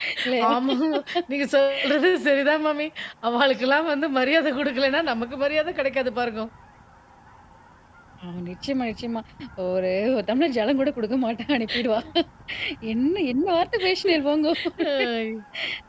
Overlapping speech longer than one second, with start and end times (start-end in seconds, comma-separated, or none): none